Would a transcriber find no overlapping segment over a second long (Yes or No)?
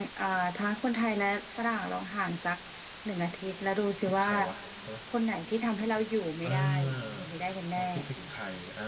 Yes